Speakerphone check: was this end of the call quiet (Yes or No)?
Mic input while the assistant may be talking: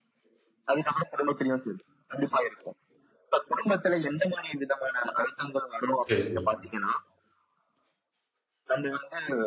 No